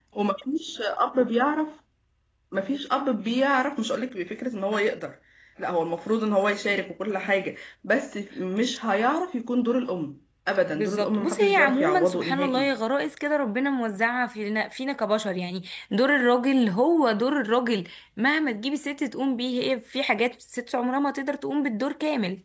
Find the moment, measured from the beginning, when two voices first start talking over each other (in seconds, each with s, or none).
10.7 s